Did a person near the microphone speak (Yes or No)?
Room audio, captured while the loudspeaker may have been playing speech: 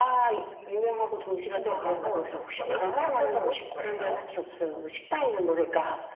No